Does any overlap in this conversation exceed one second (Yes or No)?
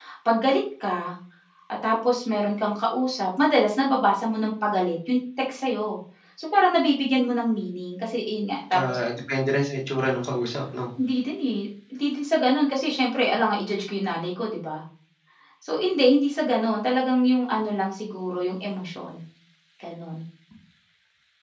No